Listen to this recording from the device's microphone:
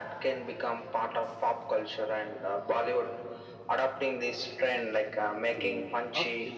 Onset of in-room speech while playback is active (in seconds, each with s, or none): 5.5 s